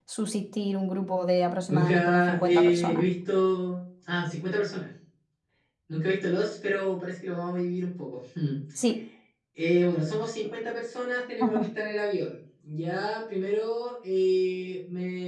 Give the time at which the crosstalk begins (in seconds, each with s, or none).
1.7 s